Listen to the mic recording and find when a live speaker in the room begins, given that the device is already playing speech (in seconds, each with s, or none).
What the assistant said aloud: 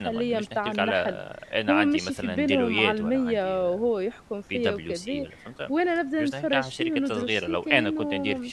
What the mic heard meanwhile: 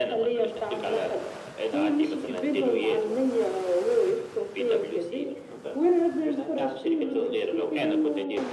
none